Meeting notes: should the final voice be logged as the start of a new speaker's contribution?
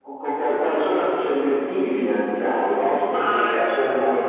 Yes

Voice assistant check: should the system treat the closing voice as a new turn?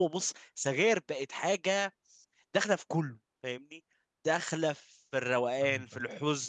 No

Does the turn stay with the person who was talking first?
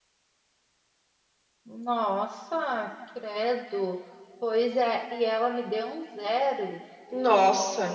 Yes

